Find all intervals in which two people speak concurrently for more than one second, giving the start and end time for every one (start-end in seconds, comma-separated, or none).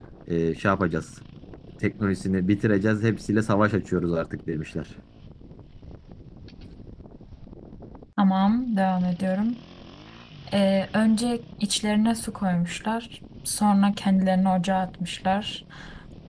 none